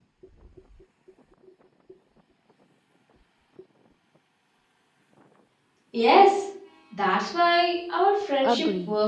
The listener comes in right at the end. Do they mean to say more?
Yes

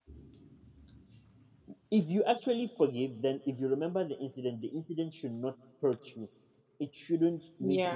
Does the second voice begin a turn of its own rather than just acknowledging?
No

